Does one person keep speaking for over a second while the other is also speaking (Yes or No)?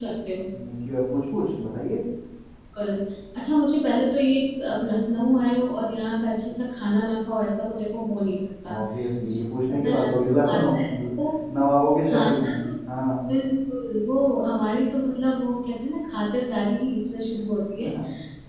Yes